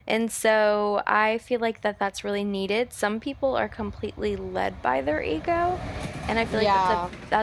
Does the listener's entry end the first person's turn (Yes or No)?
No